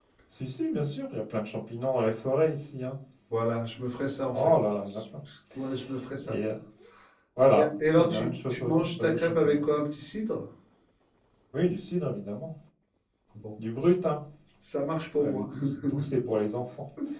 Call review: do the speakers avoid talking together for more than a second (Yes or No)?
No